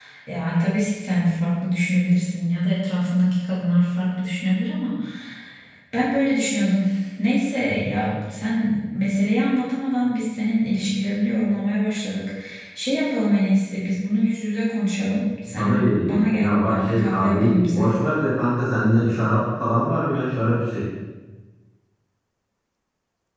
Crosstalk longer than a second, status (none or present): present